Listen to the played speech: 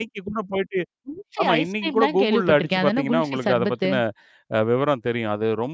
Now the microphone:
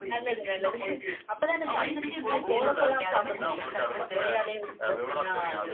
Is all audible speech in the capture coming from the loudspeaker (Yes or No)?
No